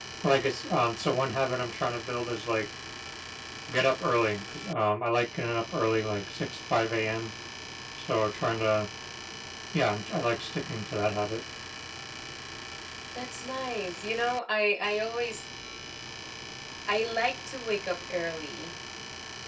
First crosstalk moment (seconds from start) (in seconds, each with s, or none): none